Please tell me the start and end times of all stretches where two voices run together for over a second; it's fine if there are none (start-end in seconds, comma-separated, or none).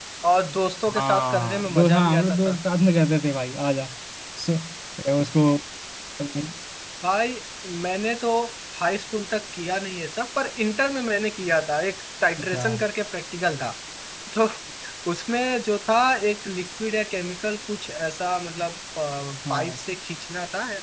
1.0-2.6